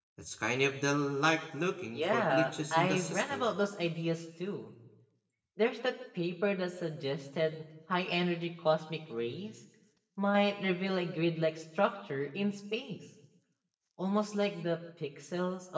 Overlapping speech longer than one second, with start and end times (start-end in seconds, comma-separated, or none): 1.9-3.4